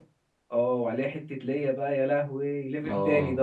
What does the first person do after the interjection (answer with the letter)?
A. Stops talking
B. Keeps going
A